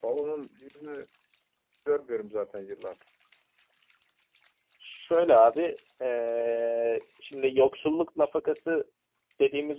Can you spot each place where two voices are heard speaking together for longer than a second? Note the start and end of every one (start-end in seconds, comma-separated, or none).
none